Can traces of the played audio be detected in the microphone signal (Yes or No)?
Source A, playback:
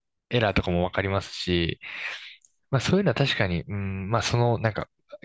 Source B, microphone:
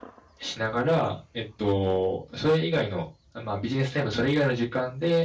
No